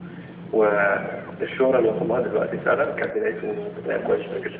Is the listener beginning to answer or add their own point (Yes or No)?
Yes